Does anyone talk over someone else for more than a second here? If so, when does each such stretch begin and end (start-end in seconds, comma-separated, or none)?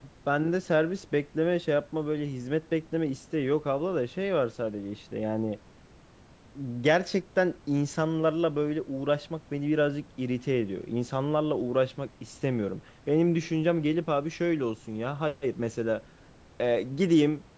none